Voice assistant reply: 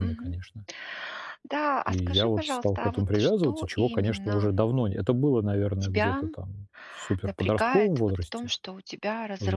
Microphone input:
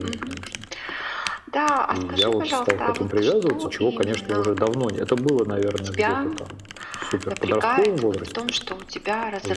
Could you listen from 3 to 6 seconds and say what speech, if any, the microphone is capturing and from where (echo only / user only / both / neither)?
echo only